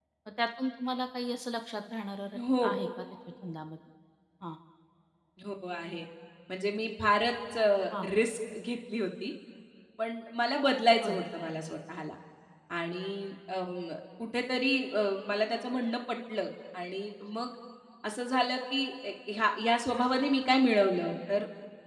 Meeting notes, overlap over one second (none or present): none